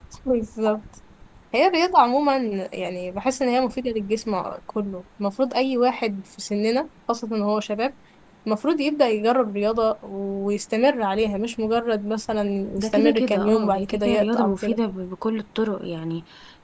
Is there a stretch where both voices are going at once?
Yes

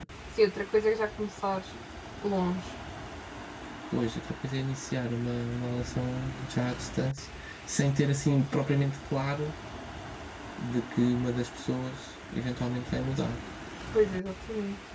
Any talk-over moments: No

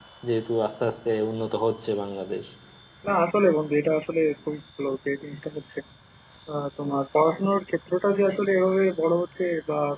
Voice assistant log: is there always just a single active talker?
Yes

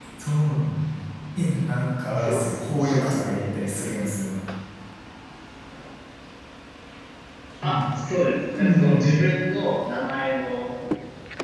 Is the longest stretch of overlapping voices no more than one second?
No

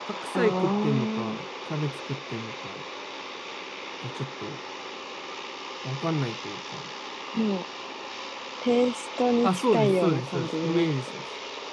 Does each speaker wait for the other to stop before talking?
No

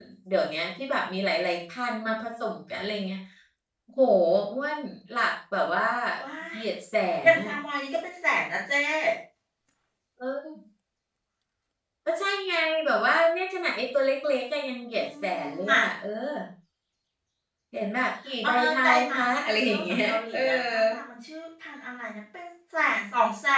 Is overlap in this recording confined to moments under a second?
No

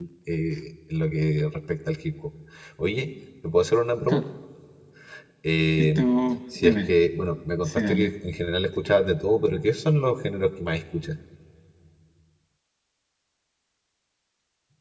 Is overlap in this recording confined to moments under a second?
Yes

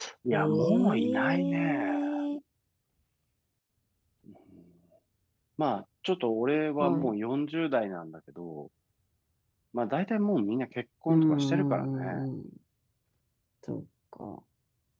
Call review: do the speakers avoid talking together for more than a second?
No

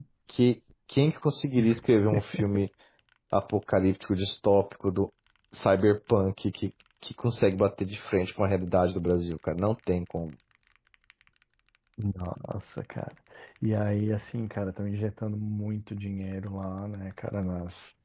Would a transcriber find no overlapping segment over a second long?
Yes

